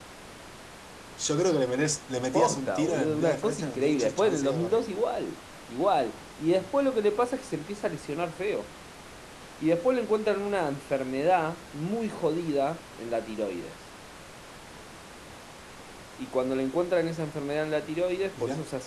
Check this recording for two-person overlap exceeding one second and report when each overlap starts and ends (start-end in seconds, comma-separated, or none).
2.3-4.9